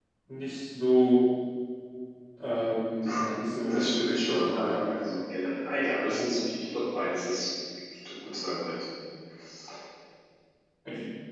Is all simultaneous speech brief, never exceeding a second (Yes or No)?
No